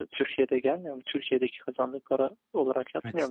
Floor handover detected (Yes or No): Yes